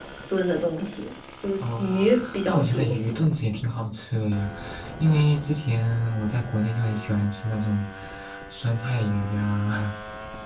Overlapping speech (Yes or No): Yes